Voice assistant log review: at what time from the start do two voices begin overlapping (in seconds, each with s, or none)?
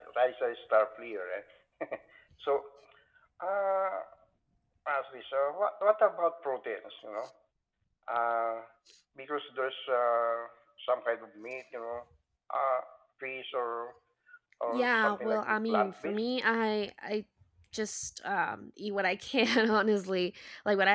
14.7 s